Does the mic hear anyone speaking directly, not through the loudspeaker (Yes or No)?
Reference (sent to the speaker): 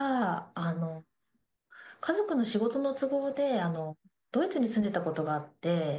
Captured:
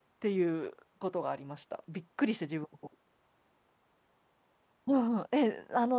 Yes